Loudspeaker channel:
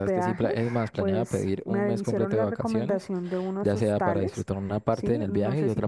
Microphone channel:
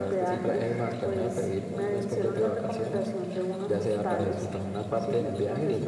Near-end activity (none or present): none